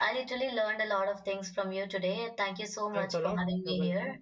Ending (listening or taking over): taking over